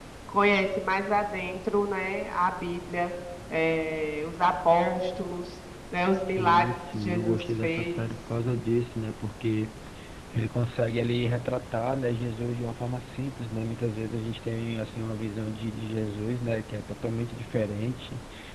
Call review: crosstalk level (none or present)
present